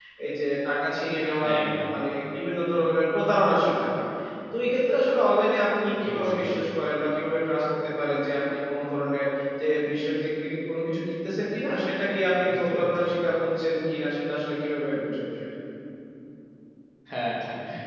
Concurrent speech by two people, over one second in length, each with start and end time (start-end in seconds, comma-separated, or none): none